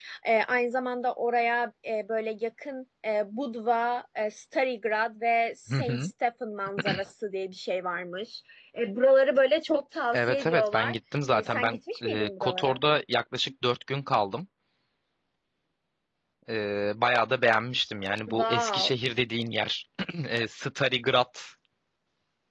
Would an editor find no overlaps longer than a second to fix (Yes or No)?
No